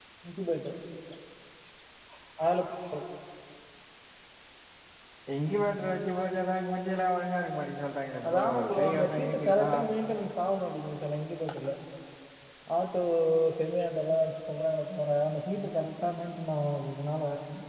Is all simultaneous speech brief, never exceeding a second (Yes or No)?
No